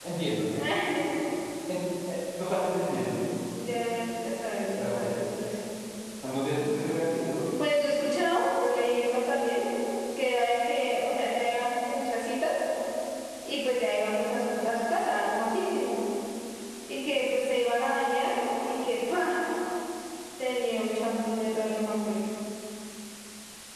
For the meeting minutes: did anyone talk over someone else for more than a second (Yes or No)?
No